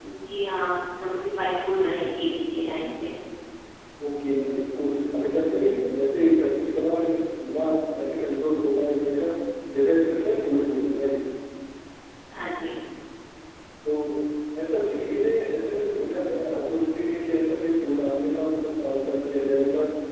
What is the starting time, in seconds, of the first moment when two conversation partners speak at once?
none

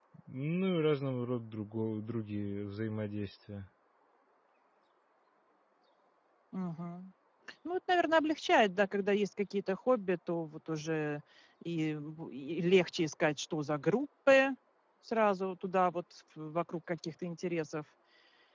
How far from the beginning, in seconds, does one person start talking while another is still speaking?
none

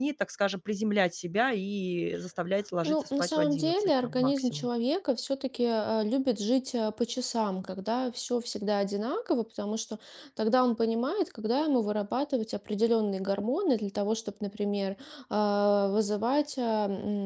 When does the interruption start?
2.8 s

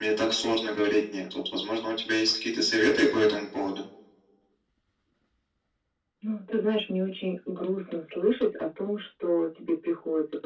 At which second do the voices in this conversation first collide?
none

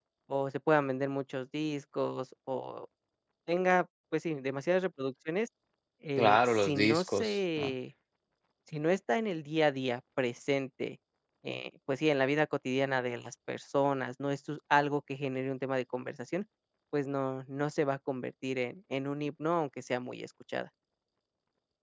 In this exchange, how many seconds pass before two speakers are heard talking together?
6.2 s

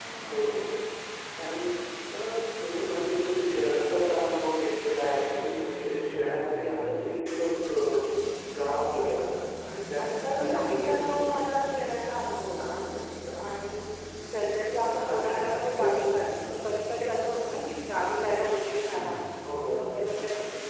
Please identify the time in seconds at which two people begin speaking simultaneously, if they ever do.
10.0 s

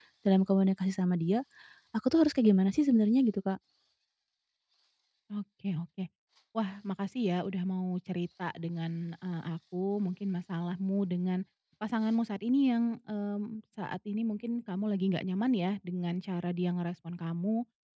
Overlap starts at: none

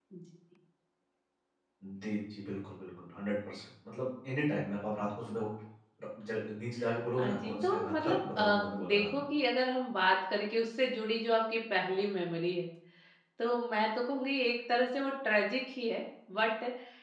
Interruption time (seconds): 7.2 s

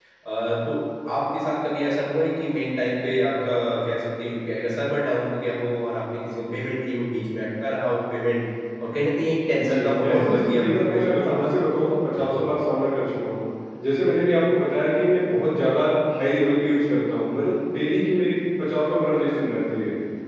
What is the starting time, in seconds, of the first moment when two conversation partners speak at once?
9.6 s

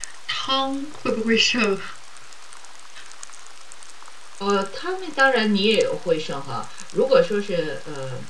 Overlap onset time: none

